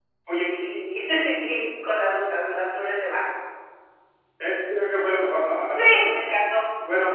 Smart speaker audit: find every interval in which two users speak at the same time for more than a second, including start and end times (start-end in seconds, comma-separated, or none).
none